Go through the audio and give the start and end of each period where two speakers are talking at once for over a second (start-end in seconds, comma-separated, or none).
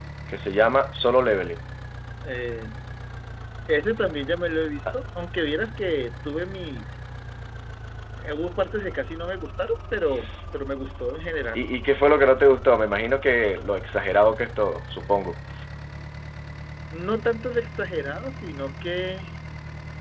none